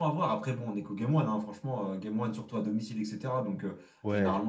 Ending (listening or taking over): listening